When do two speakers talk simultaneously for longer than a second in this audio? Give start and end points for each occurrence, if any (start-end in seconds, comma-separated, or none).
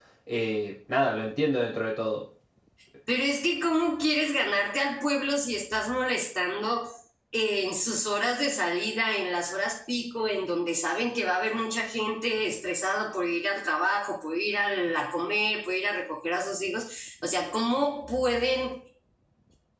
none